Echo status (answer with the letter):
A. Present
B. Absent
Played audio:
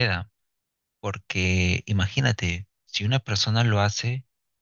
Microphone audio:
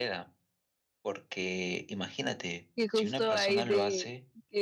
A